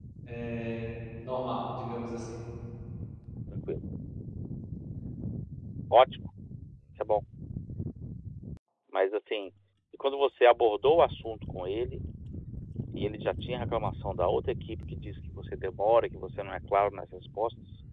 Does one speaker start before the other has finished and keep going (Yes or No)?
No